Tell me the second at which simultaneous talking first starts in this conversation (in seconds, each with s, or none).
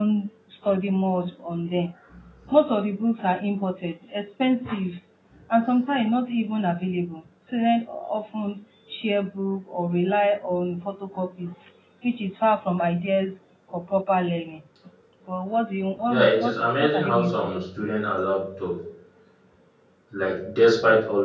16.1 s